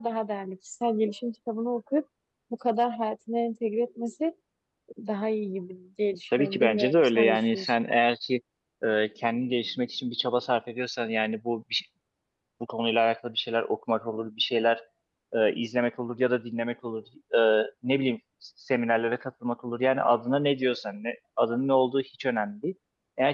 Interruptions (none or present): present